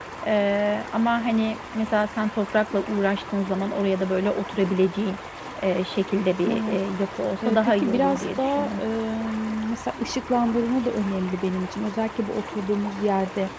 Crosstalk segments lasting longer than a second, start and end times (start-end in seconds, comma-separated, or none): 7.4-8.8